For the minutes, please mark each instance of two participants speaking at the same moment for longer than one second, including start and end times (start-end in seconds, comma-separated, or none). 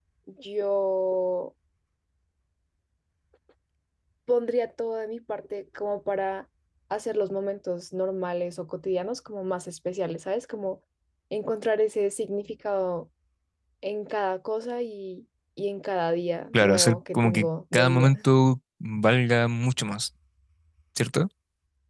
16.5-18.2